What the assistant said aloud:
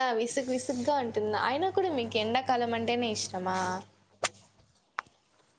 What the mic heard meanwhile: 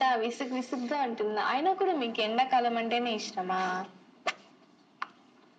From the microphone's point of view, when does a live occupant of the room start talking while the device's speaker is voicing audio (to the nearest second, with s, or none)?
none